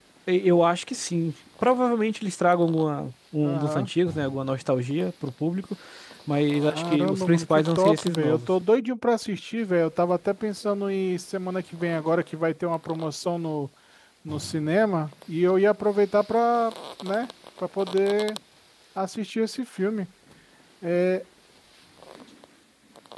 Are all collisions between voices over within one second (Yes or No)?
No